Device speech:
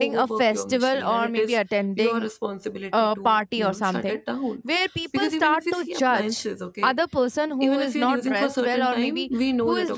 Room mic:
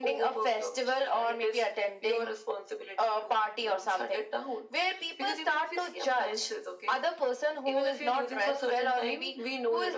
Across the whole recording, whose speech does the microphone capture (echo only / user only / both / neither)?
echo only